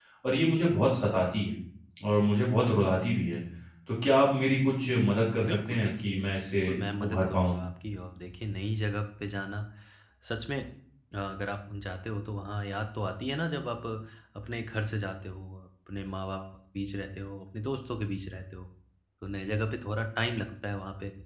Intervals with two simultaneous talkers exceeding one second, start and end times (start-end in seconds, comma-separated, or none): 5.5-7.5